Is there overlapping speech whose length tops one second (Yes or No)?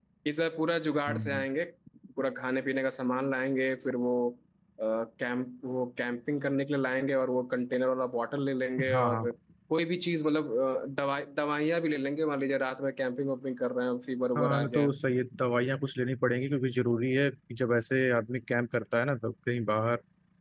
No